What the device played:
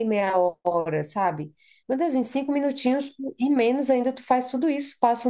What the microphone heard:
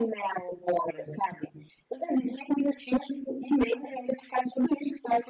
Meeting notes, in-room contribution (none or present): none